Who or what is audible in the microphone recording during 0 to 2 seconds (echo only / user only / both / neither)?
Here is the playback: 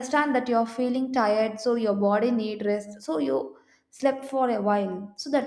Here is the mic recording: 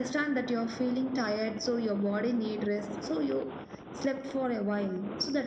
echo only